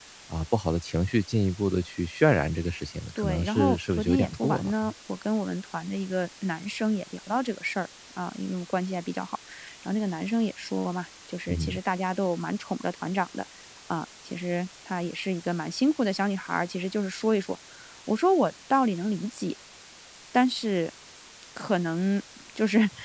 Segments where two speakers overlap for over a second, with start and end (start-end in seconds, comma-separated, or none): 3.1-4.9